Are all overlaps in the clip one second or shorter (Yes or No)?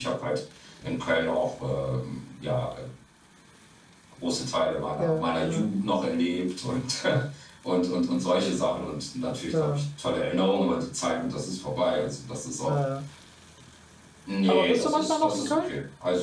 No